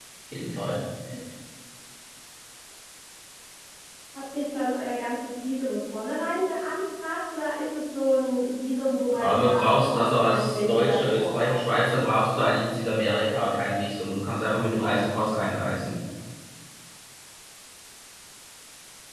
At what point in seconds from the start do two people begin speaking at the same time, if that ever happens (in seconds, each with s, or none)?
9.1 s